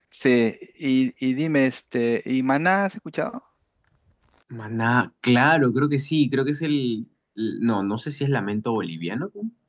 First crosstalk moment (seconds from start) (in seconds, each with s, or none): none